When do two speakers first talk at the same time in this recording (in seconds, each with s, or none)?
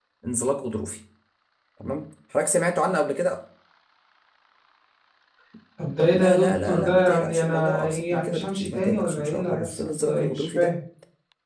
6.1 s